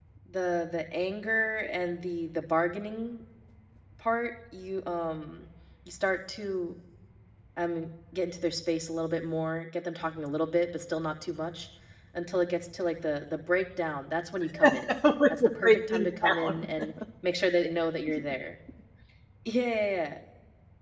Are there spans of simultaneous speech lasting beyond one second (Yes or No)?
Yes